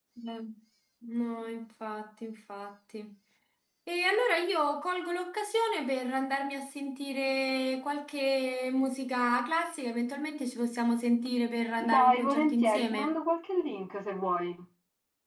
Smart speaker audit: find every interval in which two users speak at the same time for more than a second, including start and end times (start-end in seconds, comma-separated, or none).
11.9-13.2